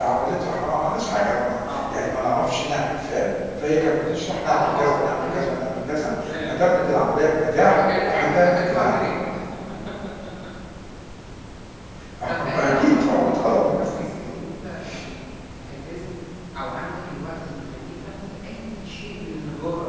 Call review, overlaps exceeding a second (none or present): present